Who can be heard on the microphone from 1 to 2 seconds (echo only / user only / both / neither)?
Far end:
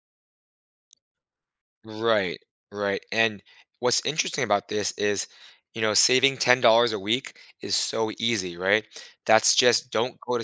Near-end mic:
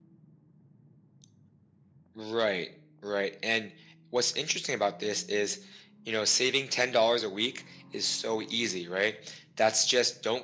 neither